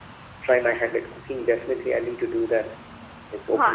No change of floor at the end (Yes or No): No